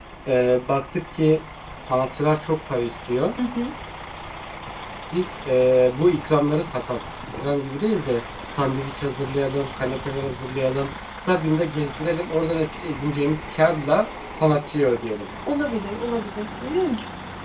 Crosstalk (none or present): none